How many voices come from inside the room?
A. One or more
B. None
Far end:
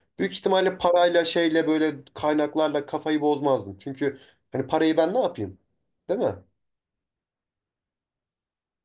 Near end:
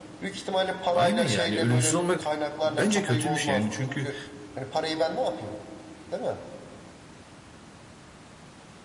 A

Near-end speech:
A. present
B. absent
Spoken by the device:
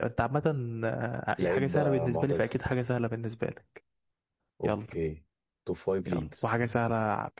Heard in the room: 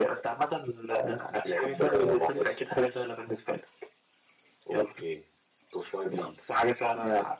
B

